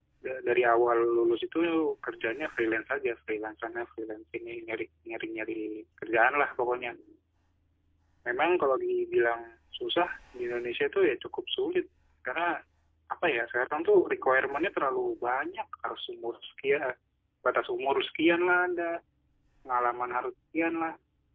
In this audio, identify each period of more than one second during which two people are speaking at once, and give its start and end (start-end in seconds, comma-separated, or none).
none